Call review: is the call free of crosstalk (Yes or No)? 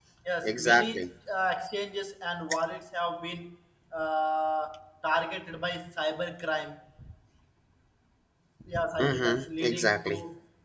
No